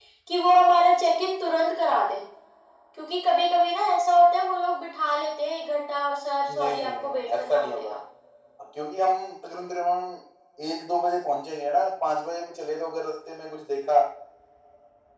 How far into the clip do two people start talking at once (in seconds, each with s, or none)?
6.5 s